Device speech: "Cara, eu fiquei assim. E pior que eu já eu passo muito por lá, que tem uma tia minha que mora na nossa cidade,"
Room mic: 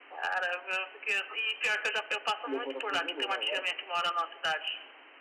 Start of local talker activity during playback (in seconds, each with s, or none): 2.5 s